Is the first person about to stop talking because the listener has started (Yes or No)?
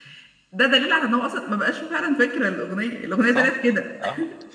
Yes